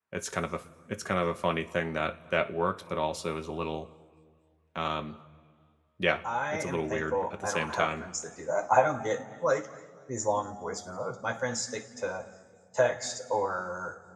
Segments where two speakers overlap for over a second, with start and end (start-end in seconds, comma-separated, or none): 6.5-8.1